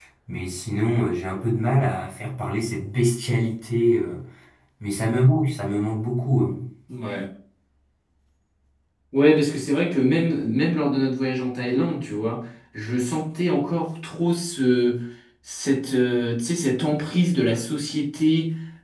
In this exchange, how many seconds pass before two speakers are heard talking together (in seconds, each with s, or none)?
none